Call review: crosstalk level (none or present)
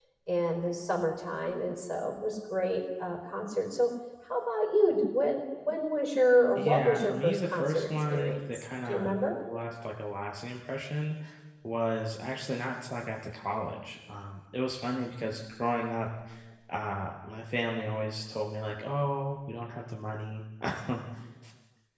present